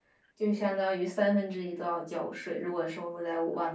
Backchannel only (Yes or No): No